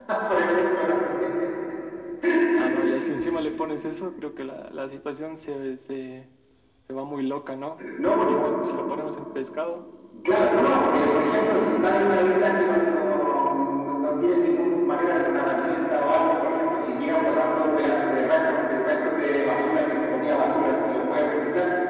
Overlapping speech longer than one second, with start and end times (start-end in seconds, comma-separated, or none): none